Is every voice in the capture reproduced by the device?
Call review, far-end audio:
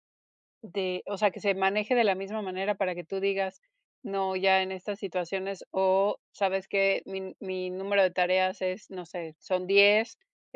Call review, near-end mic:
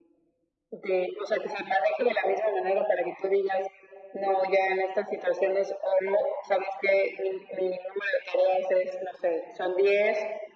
Yes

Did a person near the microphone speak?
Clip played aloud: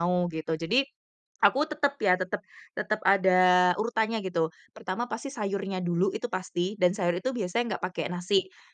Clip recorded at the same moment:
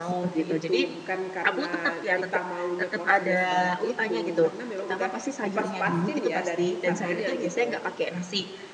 Yes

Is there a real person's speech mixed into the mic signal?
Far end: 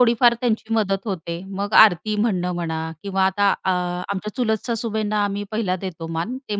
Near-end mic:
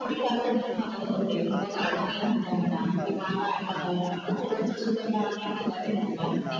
Yes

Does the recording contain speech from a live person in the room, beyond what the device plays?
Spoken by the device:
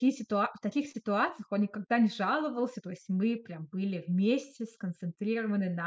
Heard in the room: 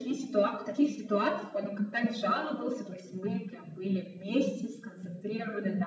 No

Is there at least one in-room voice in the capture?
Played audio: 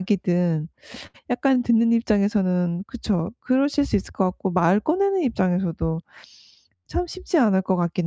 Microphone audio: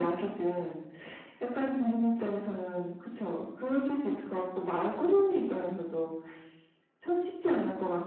No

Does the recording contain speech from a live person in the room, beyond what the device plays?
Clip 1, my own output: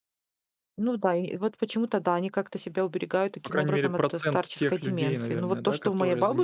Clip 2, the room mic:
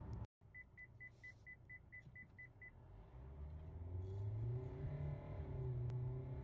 No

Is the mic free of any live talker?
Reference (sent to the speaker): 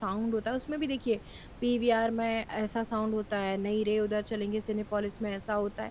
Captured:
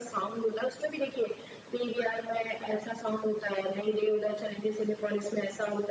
Yes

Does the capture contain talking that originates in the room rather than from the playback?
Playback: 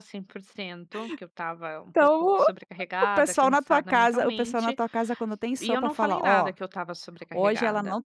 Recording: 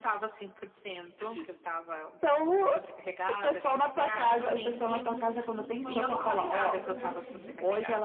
Yes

